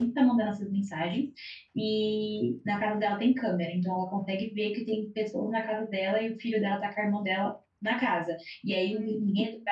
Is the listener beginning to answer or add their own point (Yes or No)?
No